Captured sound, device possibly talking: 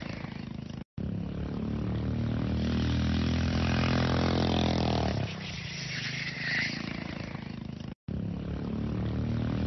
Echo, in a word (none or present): none